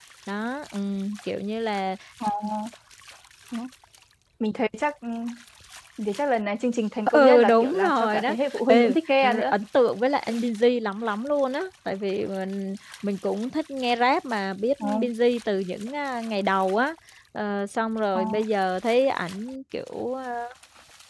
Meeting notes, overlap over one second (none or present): present